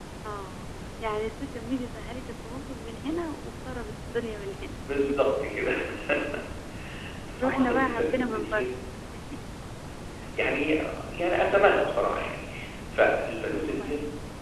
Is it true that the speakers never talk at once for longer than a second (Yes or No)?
No